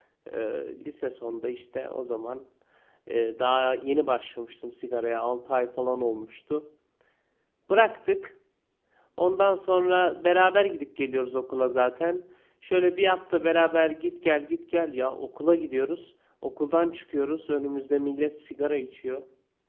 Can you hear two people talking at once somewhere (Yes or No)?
No